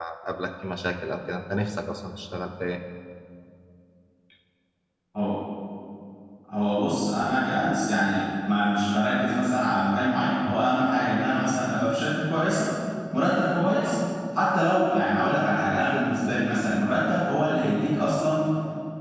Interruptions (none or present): none